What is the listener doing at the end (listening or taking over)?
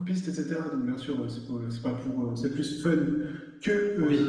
listening